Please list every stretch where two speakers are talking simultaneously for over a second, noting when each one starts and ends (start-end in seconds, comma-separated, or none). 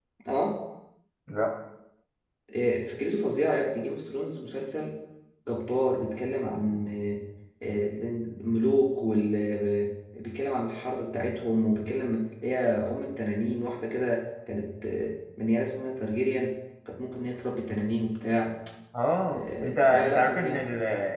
19.2-20.6